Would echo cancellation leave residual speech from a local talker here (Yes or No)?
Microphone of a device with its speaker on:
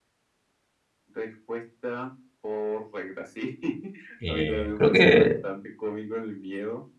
Yes